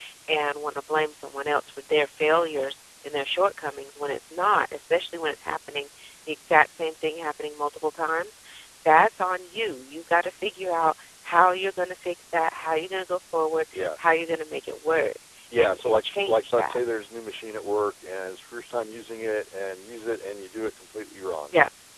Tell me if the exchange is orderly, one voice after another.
No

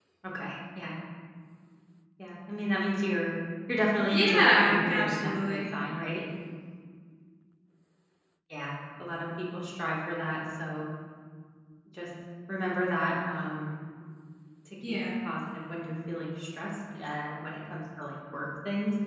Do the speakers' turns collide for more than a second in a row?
Yes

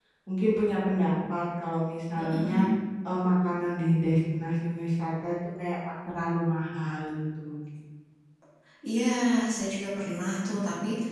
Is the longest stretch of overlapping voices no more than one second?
Yes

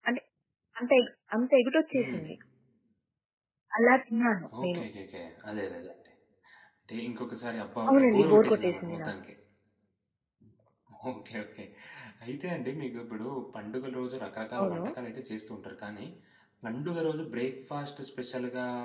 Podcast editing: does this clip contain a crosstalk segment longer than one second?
Yes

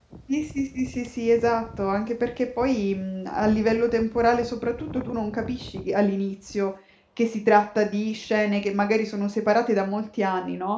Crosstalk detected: No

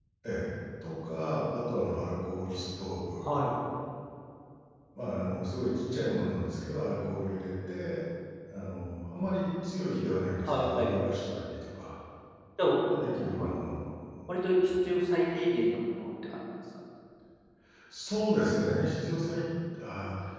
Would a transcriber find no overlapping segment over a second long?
Yes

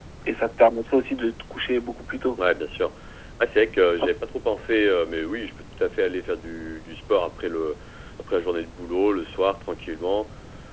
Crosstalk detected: No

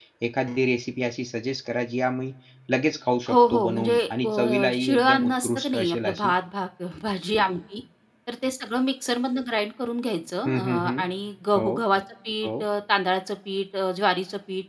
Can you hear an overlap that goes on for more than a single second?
Yes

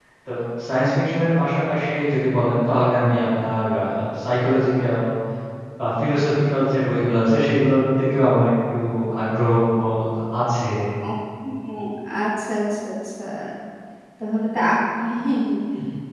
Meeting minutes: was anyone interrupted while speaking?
No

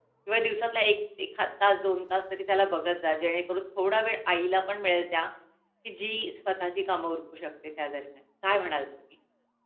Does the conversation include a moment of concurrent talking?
No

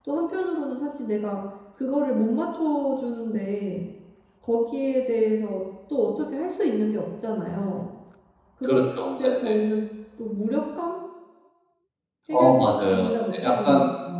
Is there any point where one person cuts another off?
Yes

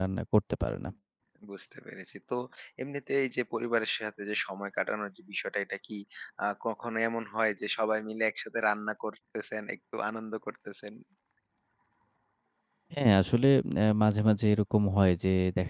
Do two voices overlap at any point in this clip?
No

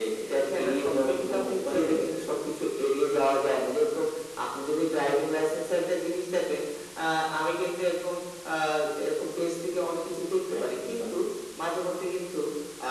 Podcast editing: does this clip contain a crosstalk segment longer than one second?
Yes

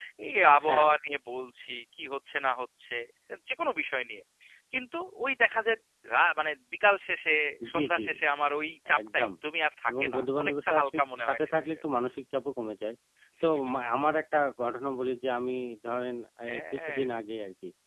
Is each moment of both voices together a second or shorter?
No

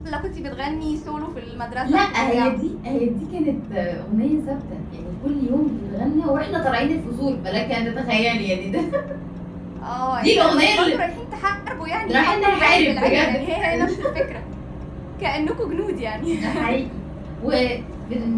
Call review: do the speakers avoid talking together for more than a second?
No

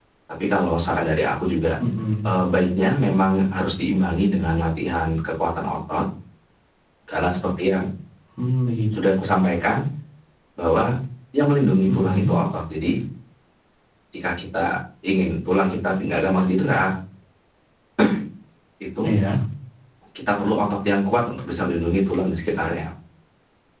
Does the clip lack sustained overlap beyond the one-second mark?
Yes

